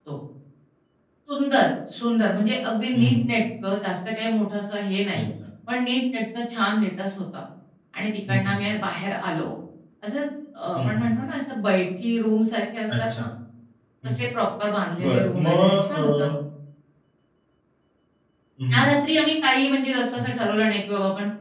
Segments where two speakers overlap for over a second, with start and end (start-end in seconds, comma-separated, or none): 15.0-16.3